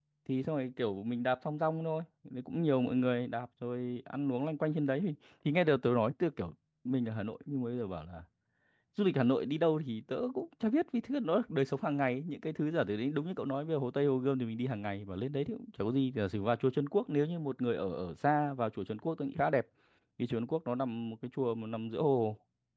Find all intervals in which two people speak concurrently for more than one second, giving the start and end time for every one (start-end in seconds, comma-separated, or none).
none